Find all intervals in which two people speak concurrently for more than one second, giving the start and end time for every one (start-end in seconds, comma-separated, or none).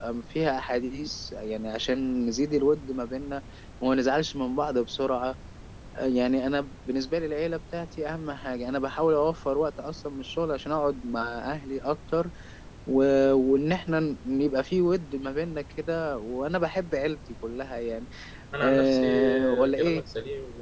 18.6-20.0